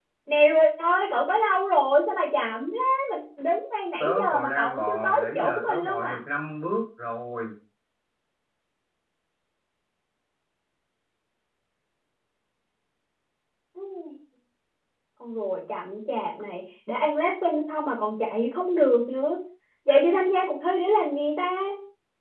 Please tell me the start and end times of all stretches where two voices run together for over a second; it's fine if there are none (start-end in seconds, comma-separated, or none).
4.0-6.2